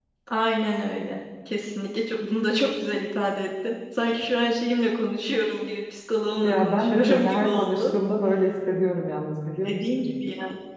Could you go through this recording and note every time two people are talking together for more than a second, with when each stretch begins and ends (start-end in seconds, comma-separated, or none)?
6.4-7.9